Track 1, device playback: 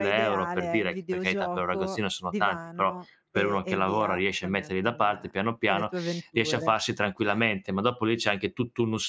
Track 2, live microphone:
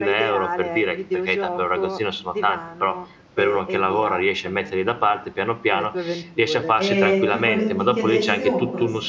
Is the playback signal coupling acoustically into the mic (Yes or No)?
Yes